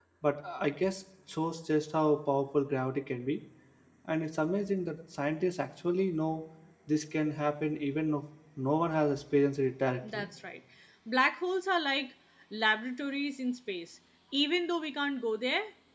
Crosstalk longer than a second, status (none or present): none